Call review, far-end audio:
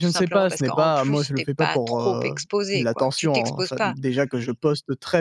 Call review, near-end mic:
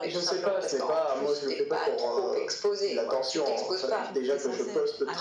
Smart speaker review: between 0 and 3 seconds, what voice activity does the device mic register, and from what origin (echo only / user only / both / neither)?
echo only